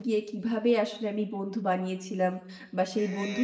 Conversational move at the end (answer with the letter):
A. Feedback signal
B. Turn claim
A